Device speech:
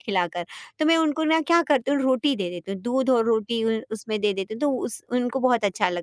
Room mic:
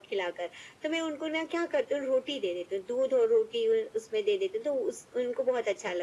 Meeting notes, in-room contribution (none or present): none